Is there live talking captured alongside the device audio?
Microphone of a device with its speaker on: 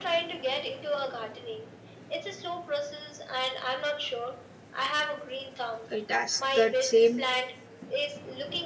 Yes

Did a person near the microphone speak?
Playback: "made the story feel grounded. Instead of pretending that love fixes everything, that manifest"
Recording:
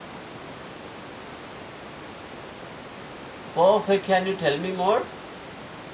Yes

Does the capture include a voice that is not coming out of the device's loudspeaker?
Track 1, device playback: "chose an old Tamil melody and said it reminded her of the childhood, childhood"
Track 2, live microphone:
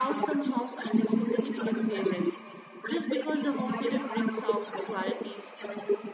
Yes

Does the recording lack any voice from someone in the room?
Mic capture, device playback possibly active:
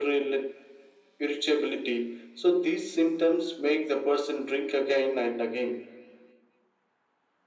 Yes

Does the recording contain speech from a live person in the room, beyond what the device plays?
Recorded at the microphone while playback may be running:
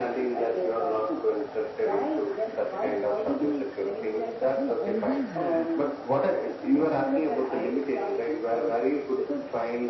Yes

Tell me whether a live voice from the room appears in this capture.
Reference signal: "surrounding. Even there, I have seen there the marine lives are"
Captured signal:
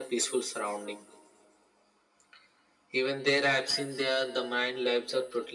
No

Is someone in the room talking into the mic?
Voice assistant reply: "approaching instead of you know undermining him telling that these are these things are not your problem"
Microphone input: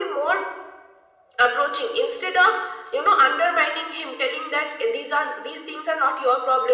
No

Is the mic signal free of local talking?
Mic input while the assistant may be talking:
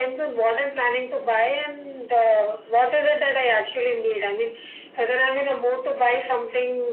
Yes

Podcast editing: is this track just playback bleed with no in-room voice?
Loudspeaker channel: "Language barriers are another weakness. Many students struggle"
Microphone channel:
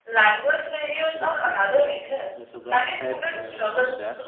No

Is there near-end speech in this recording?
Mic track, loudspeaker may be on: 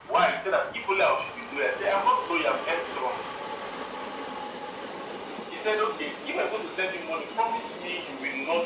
No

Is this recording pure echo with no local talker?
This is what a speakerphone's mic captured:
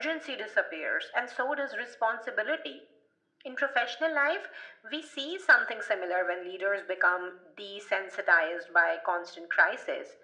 Yes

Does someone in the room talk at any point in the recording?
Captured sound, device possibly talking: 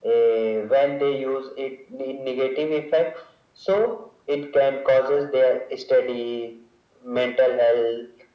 No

